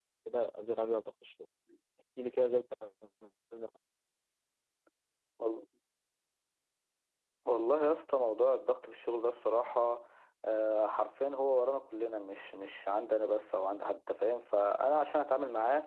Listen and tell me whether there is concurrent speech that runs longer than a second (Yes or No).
No